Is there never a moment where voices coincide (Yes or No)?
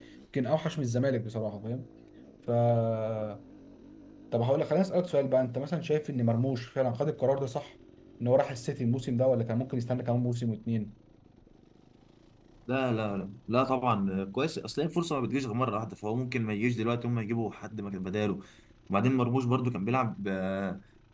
Yes